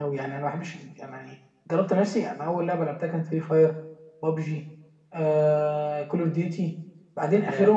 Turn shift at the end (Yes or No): No